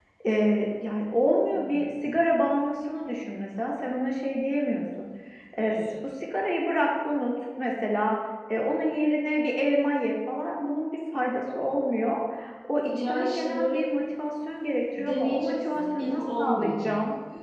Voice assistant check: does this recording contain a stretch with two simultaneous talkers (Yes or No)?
Yes